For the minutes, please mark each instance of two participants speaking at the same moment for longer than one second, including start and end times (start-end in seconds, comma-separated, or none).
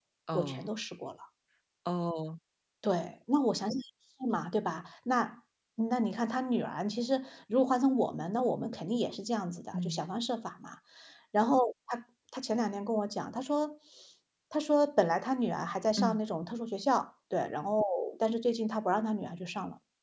none